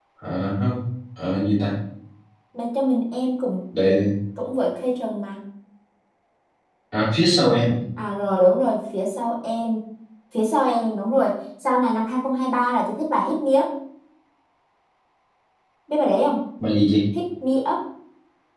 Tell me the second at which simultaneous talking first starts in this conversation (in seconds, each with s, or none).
none